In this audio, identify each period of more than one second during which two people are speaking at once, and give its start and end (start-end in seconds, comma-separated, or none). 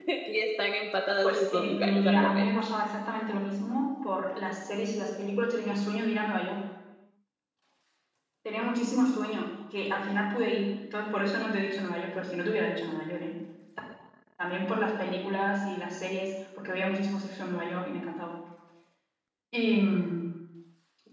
1.2-2.5